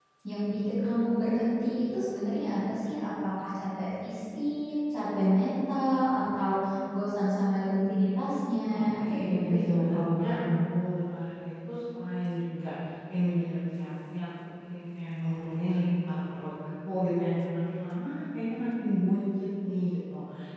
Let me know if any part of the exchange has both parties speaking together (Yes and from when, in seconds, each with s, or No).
Yes, from 8.7 s